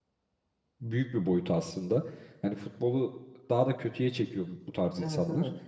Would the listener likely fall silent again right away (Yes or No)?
Yes